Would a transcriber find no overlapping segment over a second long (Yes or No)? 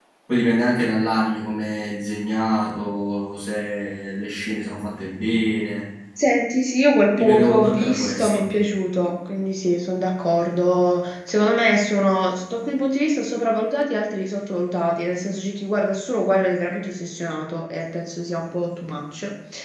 No